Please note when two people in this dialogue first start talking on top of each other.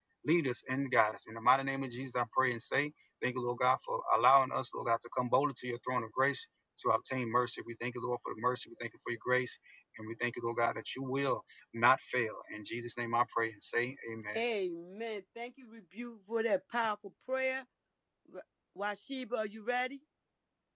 none

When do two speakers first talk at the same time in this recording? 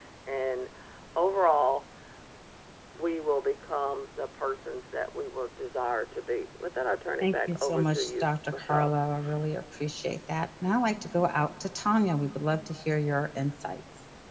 7.2 s

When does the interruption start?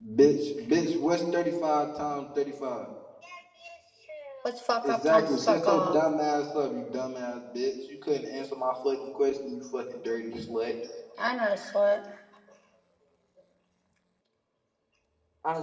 4.8 s

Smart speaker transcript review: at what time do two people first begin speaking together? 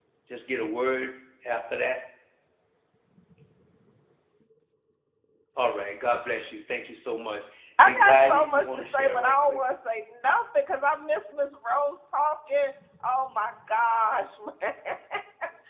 7.8 s

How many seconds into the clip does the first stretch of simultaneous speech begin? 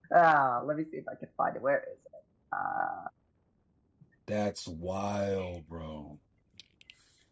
none

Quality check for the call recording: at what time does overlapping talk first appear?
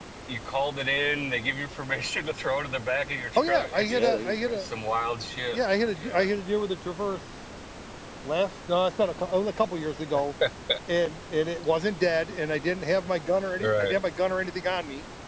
3.4 s

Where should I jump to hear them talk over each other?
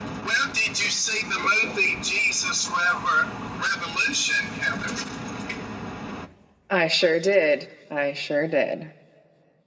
none

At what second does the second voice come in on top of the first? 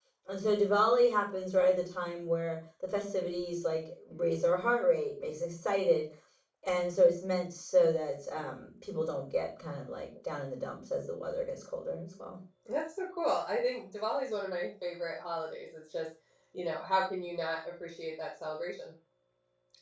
none

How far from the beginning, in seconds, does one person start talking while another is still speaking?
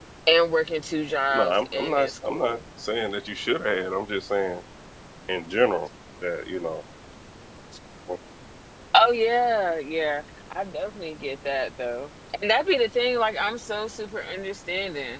1.3 s

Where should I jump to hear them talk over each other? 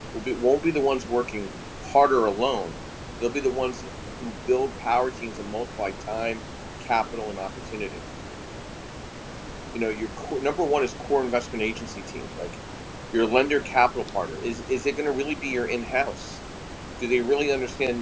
none

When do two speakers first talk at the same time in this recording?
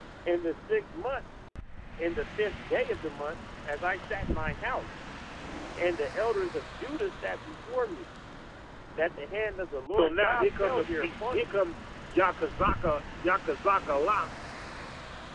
9.9 s

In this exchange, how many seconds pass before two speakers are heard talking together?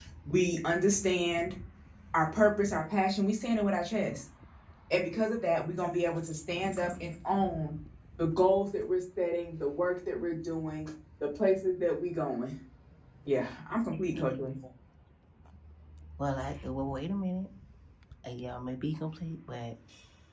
none

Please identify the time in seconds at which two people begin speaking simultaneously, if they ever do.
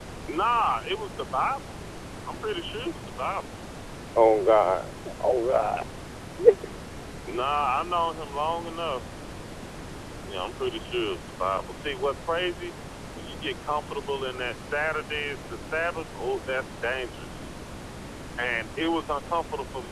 none

